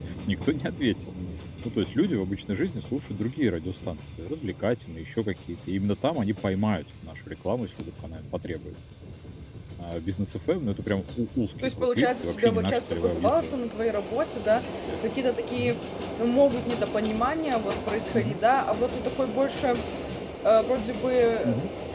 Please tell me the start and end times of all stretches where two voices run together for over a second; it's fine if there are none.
11.6-13.6

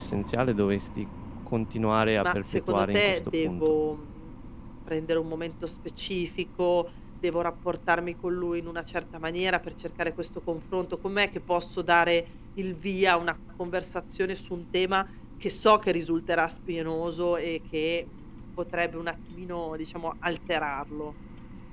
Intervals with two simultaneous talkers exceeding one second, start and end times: 2.2-3.8

